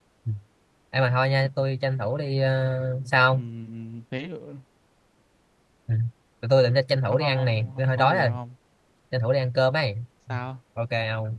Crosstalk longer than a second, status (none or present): present